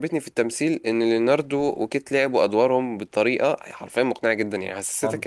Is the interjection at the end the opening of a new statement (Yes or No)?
No